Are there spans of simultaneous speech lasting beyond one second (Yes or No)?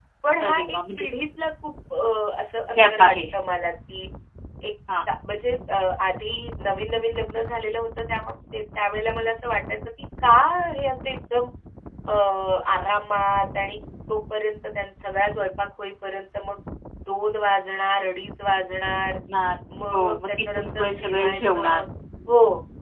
Yes